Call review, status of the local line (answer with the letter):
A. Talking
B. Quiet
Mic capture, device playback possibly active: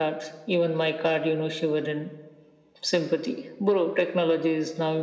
B